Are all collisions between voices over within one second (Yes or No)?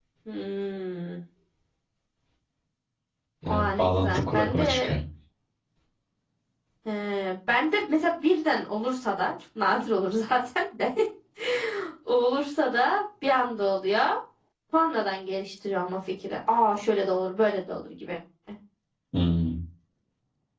No